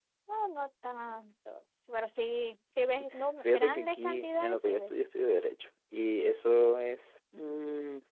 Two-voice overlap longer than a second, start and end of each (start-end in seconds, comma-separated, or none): 3.5-4.9